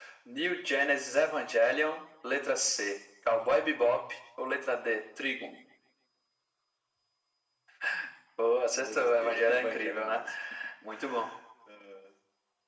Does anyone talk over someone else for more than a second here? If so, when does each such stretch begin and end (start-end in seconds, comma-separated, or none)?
8.7-10.2